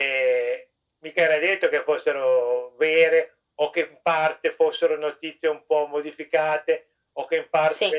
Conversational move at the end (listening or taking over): listening